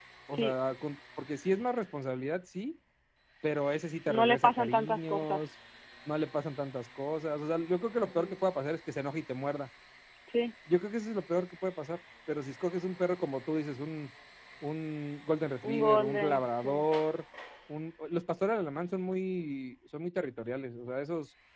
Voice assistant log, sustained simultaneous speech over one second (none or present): present